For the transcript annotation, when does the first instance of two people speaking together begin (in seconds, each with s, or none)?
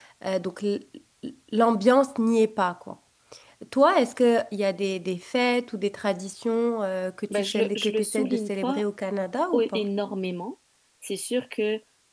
7.3 s